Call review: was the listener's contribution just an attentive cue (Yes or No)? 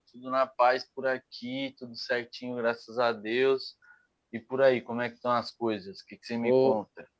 No